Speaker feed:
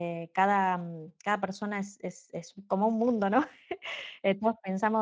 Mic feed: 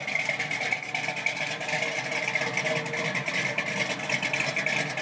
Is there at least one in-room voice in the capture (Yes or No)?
No